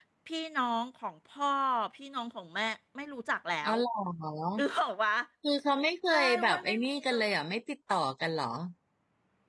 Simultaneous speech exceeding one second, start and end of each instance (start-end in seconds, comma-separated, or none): 6.1-7.4